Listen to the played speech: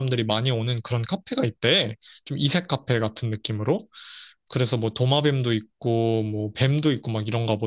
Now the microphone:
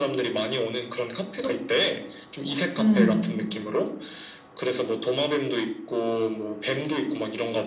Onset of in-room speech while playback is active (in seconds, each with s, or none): 2.8 s